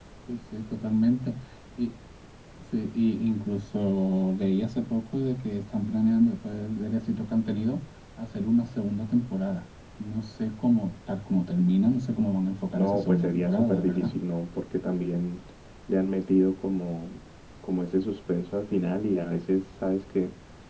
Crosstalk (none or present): present